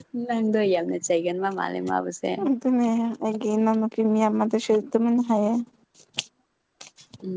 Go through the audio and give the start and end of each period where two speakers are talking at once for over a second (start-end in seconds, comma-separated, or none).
none